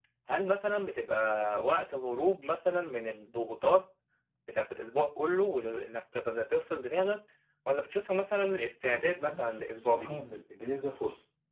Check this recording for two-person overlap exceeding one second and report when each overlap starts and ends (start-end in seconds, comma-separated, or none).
8.8-10.2